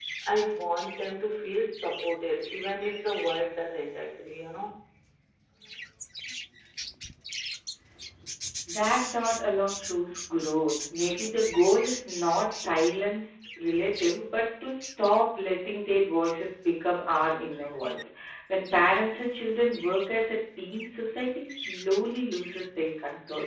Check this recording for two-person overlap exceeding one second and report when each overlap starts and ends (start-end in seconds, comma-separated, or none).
none